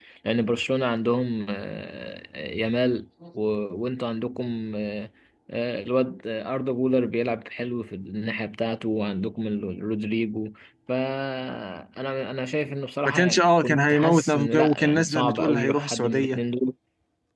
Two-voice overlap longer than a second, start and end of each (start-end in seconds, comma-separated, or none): 13.1-16.4